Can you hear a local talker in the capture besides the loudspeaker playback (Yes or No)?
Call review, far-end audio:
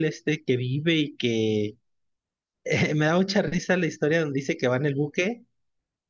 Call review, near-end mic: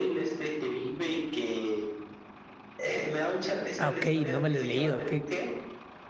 Yes